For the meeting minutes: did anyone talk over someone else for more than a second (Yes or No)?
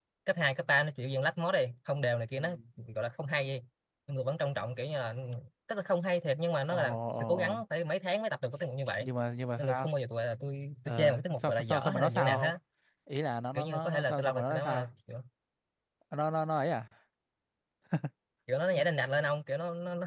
Yes